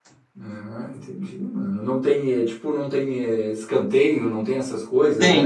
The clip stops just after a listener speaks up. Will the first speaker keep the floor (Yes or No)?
No